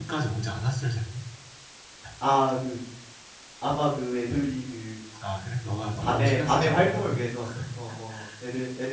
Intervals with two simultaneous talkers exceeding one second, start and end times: 6.0-7.2

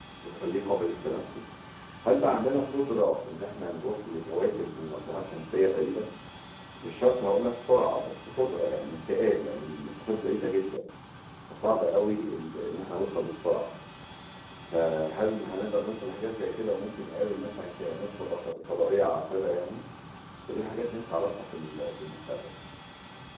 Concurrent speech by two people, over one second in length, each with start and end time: none

